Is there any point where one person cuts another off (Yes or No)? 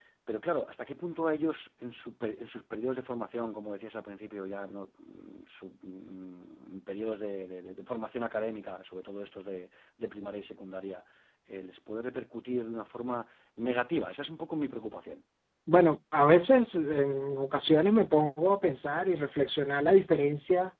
No